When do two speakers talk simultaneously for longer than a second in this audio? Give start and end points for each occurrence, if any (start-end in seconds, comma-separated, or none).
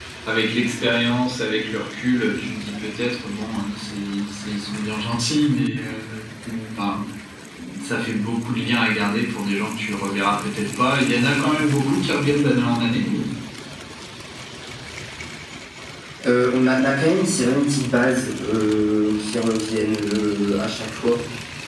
none